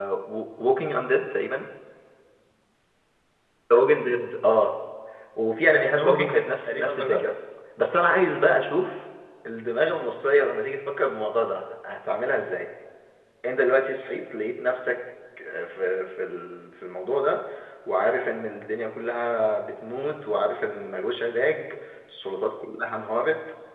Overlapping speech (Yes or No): Yes